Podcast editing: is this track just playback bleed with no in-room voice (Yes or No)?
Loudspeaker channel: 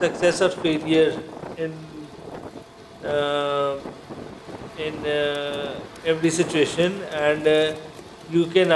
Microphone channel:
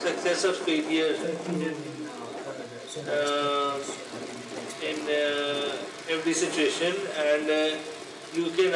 No